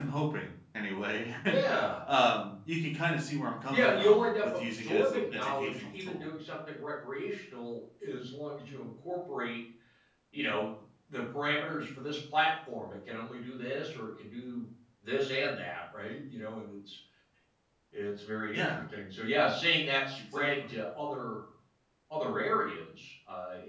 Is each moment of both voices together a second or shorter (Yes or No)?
No